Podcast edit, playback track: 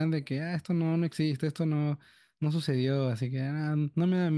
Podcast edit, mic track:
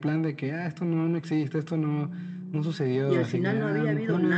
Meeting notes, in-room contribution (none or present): present